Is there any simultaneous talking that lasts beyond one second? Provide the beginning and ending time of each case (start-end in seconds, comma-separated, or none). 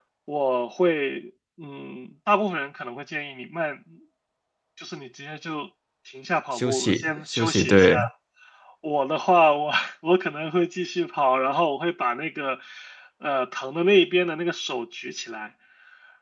6.5-7.9